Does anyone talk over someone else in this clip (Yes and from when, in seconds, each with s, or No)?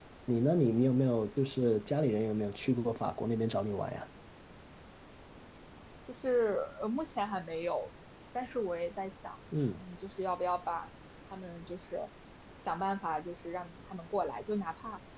No